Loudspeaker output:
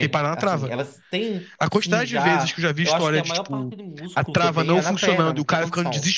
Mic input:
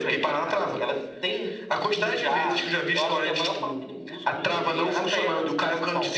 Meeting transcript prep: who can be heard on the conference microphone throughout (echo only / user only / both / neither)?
echo only